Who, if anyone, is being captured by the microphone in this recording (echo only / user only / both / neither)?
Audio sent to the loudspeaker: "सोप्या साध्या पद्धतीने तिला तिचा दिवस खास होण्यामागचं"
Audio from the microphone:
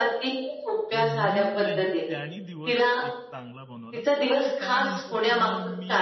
both